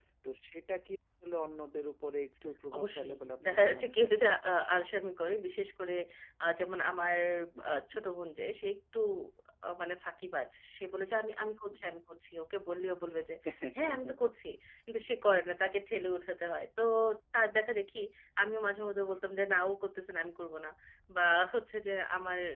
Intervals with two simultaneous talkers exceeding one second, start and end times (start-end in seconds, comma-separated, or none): 2.8-4.1